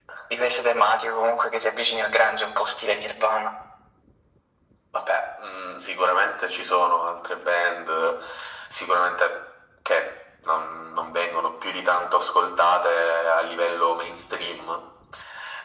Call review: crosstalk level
none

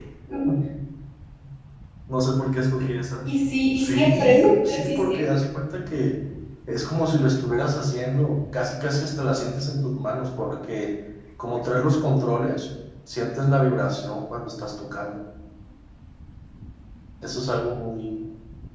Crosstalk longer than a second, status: present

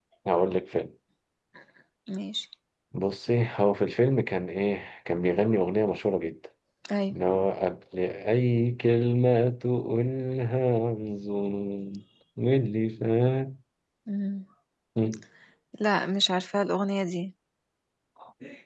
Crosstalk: none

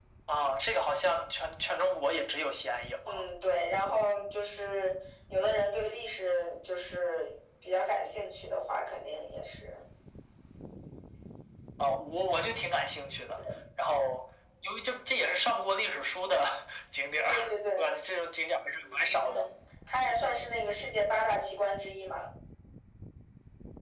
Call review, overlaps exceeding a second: none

